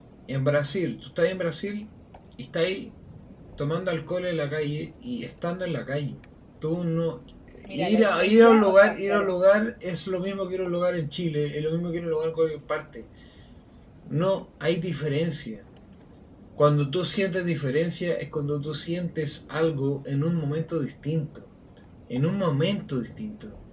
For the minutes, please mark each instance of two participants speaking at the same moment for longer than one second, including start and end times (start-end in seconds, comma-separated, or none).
7.7-9.3